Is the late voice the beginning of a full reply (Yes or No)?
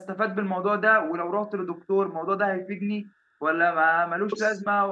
No